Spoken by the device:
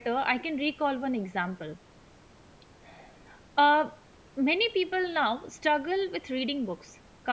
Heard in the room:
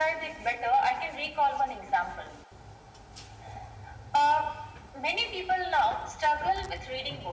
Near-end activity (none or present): none